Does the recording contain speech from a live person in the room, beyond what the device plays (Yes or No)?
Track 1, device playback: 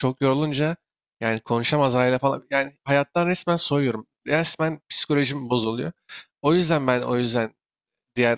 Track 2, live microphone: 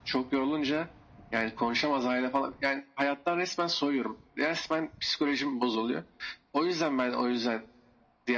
No